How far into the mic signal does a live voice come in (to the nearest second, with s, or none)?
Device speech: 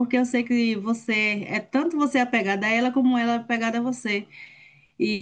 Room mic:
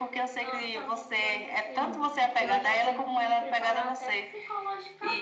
0 s